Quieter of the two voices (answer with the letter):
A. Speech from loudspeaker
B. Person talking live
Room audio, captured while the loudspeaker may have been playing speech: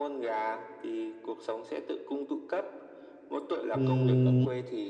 A